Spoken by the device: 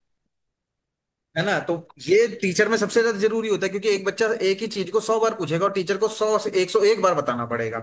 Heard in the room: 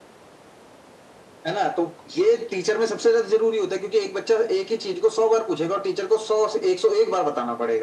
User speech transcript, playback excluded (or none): none